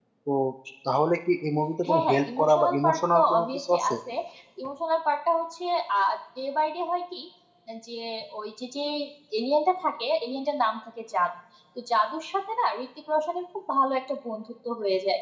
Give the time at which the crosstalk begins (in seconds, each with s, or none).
1.8 s